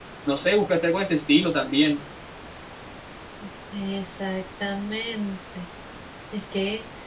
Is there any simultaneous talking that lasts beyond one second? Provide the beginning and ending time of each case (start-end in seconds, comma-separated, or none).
none